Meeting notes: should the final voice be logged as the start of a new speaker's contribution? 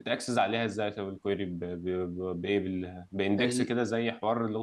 No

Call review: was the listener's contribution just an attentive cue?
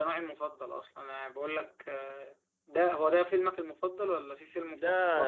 No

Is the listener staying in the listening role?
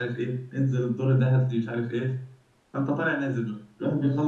Yes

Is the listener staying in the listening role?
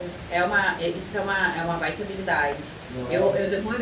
Yes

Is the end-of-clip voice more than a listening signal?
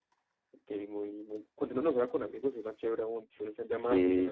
Yes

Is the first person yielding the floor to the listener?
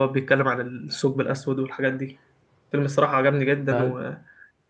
No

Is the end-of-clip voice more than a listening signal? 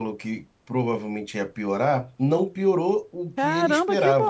Yes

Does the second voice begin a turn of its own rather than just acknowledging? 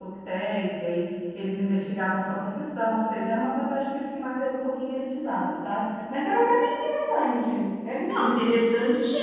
Yes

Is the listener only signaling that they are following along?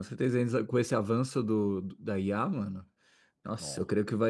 Yes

